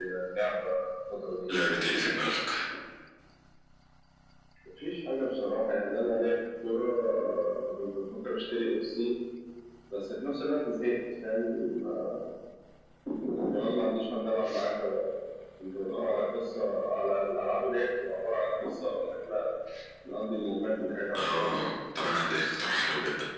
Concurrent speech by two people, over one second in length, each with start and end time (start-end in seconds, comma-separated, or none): none